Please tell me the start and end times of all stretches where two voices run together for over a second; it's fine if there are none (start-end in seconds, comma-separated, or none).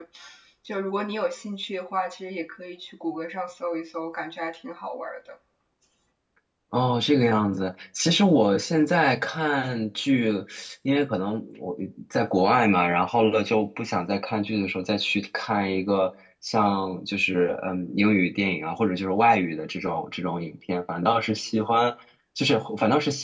none